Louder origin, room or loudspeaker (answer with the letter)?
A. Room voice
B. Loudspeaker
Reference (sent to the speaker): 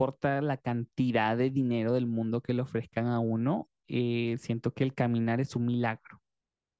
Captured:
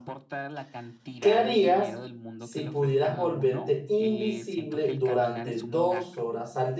A